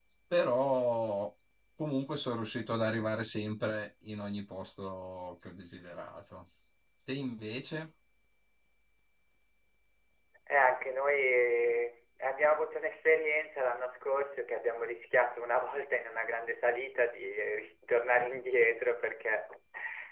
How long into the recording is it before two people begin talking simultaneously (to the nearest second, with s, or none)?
none